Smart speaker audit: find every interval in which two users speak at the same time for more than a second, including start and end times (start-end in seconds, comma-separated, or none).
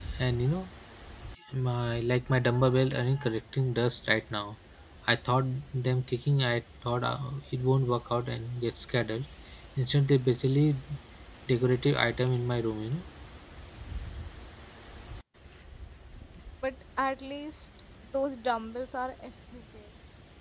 none